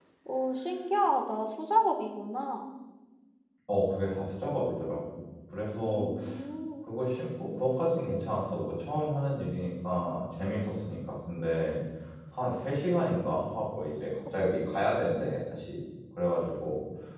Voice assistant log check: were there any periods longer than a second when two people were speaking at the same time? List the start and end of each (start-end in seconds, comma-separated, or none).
none